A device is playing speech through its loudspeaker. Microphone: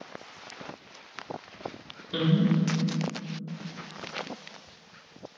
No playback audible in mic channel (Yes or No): Yes